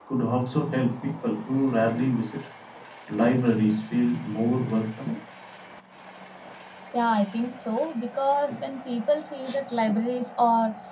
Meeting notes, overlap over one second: none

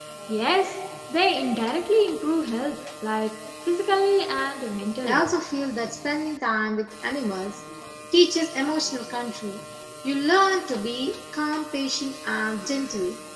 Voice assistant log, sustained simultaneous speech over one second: none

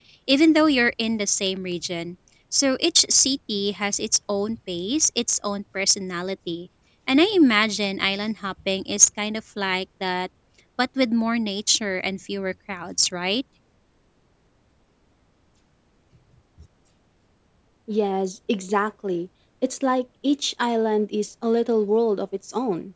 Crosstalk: none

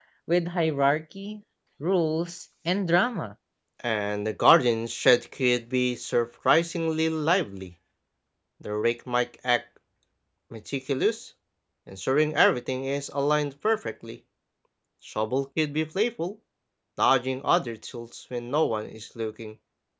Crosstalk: none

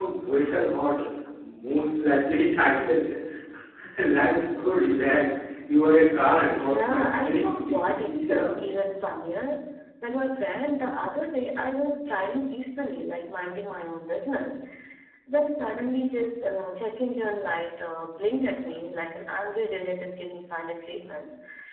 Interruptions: present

